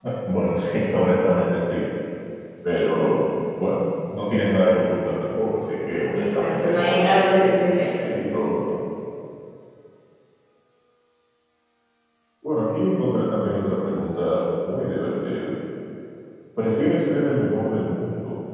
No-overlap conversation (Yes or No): No